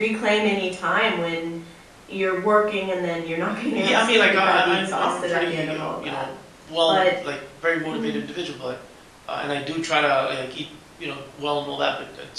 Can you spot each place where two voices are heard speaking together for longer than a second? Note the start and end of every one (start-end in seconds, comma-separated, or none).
3.7-6.3